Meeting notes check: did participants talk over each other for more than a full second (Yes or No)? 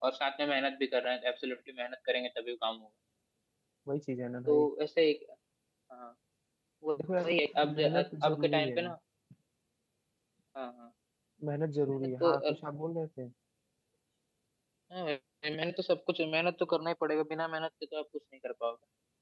Yes